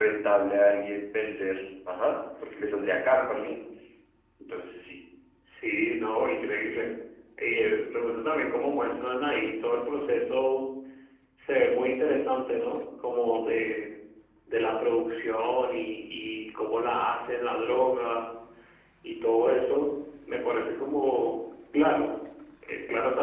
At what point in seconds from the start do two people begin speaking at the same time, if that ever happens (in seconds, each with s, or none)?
none